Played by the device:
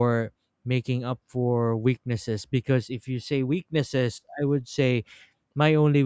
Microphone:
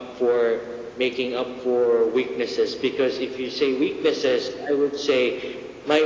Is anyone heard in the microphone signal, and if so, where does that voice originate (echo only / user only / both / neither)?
echo only